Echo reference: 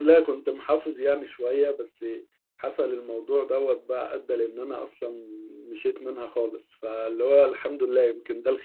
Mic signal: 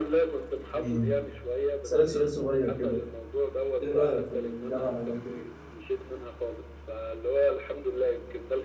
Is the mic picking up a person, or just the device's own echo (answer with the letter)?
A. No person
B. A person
B